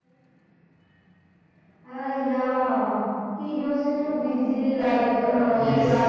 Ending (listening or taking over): taking over